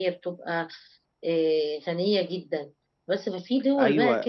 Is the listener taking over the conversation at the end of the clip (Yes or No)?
Yes